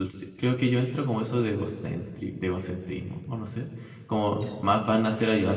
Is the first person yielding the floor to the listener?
No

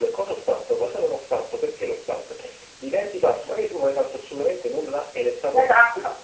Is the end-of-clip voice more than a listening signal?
No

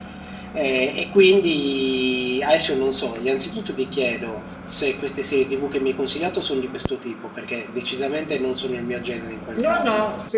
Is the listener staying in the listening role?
No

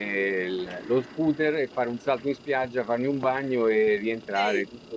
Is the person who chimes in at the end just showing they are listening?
Yes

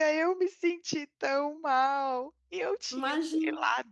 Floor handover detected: No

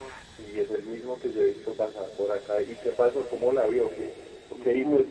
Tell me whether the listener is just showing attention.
No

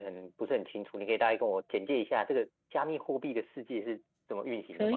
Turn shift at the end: Yes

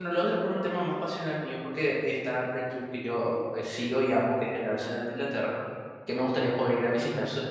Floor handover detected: No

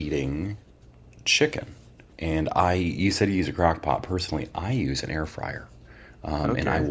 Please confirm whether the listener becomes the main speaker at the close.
No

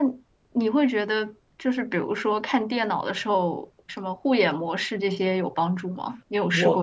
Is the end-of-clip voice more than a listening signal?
Yes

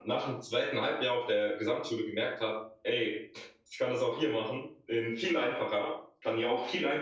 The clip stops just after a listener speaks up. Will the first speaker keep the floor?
Yes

